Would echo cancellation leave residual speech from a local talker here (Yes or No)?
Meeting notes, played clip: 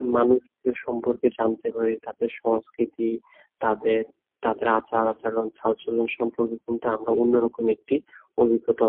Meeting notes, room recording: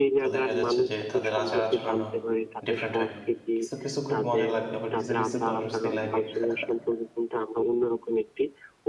Yes